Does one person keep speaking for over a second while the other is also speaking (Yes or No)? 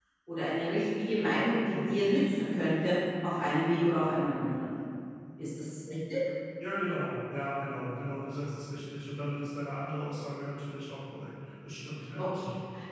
No